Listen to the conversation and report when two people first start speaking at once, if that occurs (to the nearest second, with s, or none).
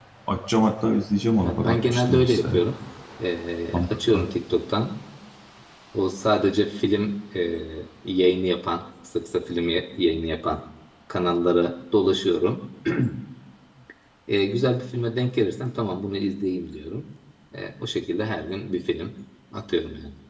1 s